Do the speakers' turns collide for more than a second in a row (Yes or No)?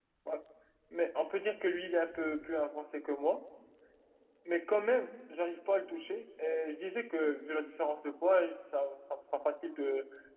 No